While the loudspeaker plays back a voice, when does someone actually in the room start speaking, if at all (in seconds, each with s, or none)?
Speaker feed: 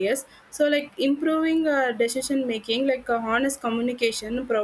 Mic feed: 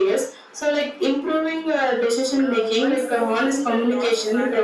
2.4 s